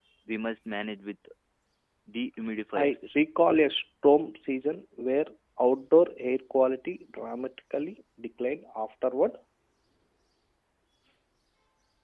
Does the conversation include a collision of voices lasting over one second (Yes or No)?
No